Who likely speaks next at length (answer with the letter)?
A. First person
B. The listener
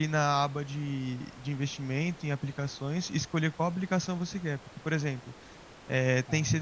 A